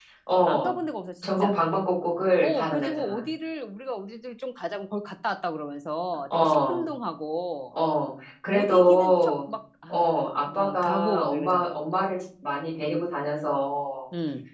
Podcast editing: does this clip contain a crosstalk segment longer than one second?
Yes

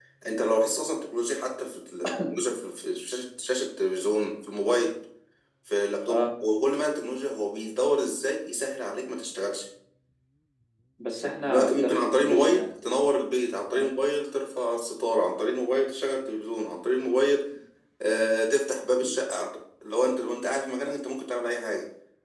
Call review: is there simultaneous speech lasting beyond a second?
Yes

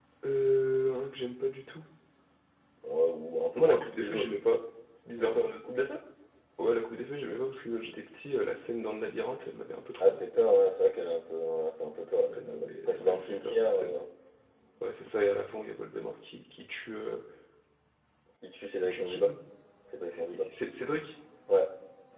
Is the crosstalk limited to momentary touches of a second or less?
No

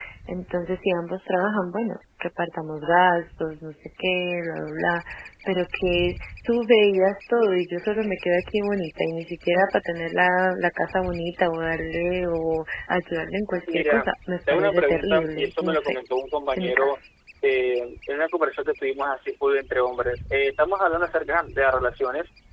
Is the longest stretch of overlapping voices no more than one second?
No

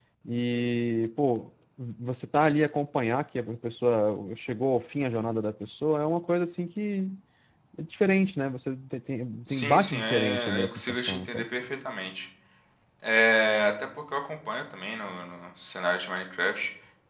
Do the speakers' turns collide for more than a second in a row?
Yes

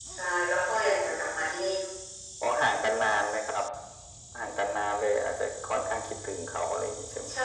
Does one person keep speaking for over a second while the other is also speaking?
No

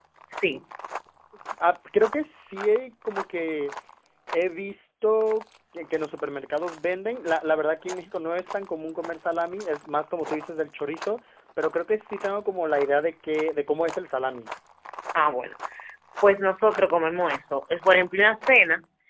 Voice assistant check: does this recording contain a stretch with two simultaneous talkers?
No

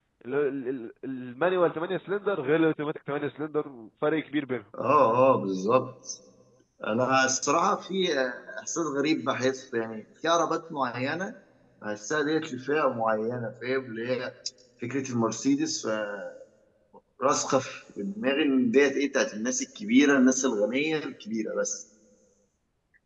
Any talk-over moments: No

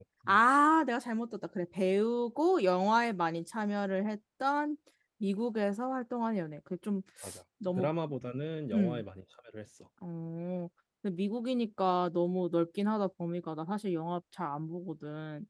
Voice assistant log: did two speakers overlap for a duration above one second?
No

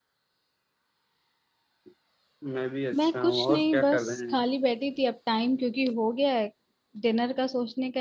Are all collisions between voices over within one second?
No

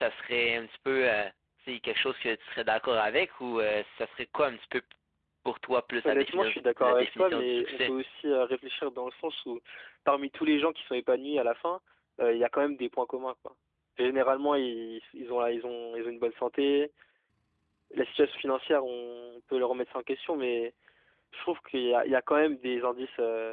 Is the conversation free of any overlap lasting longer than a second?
No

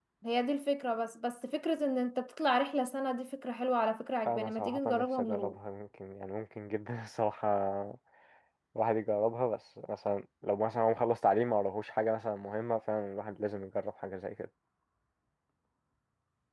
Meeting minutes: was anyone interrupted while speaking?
Yes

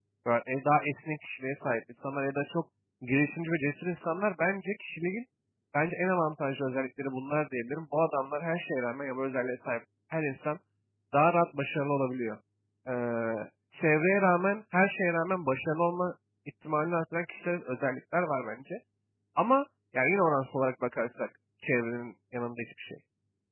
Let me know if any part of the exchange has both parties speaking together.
No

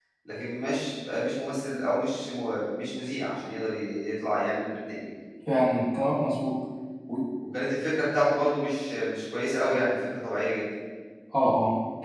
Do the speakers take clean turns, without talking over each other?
Yes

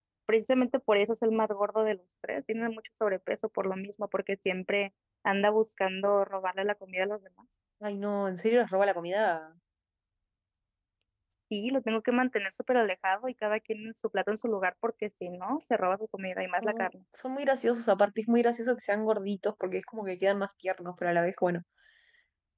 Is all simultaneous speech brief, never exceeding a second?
Yes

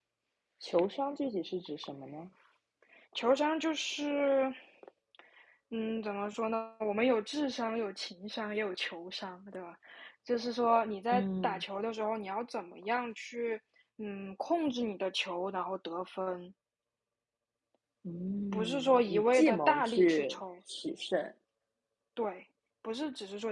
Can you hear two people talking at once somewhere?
Yes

